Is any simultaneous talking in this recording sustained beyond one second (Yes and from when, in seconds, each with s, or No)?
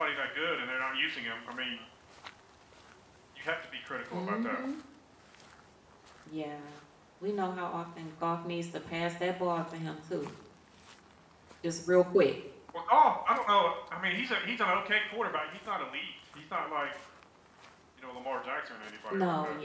No